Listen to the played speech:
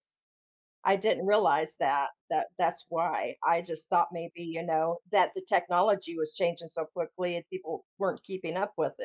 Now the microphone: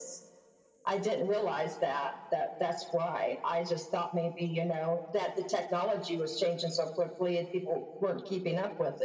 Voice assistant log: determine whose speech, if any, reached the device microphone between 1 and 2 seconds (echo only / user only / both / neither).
echo only